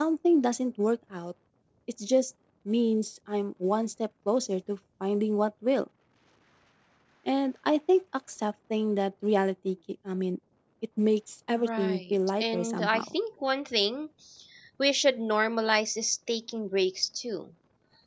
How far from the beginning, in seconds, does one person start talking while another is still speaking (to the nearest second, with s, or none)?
12 s